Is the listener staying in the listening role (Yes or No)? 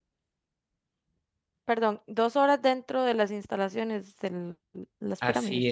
No